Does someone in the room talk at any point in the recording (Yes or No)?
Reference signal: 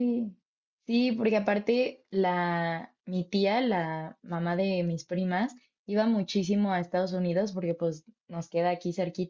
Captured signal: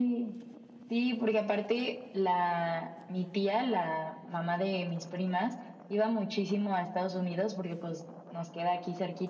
No